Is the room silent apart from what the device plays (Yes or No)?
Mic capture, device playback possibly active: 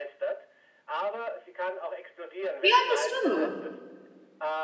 No